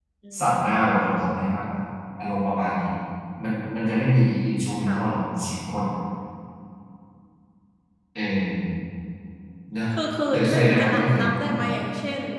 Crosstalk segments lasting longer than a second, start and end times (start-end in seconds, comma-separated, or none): 10.3-11.7